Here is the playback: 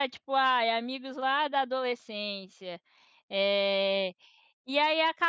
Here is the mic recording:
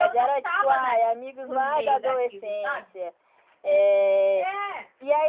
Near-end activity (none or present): present